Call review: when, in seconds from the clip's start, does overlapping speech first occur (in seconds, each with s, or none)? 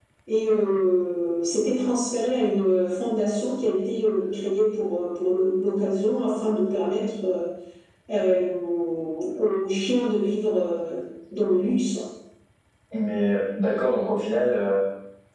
none